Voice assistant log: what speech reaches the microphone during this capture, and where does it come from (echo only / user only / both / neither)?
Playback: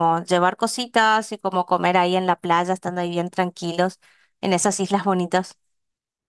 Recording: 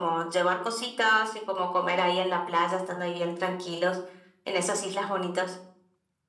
echo only